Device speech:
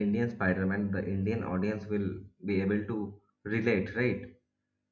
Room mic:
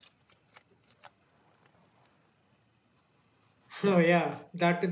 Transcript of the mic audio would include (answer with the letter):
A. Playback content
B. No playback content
B